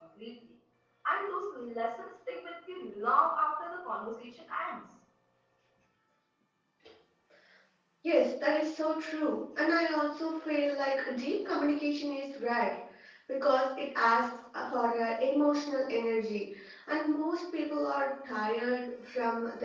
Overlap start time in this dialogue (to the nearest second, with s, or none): none